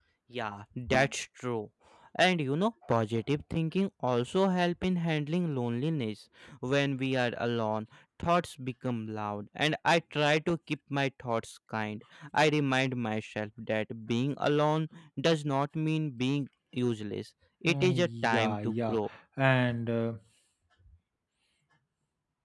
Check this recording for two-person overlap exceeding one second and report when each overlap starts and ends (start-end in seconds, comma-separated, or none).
17.6-19.0